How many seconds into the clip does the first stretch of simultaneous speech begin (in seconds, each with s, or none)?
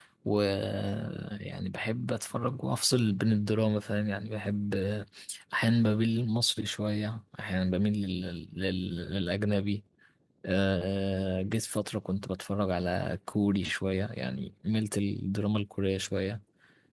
none